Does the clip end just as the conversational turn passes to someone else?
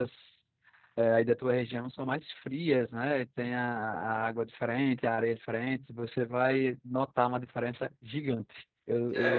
Yes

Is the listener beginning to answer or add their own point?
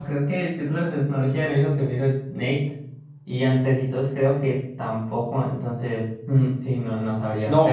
Yes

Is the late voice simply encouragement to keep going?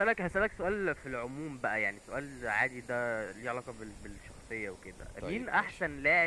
Yes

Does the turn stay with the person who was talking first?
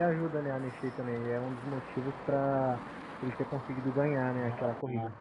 No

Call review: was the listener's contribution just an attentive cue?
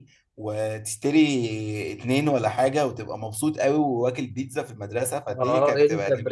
No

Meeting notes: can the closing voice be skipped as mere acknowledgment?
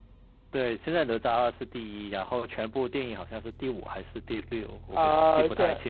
No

